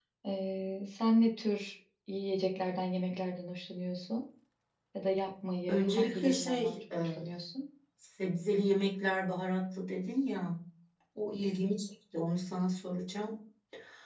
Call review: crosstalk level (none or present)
present